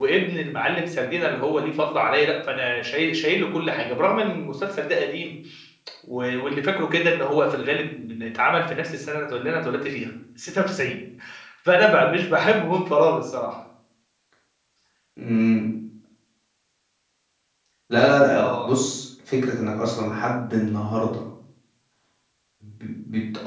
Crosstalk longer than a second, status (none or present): none